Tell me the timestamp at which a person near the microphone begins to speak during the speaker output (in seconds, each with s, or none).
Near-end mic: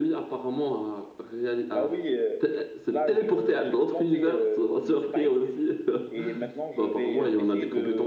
none